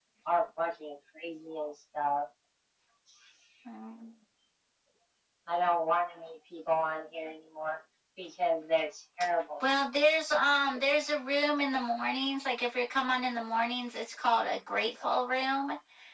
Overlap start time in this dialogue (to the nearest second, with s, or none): none